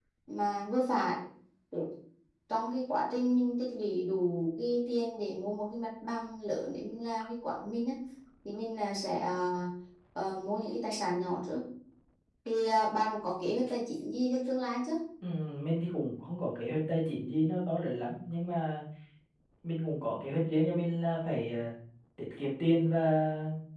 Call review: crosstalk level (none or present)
none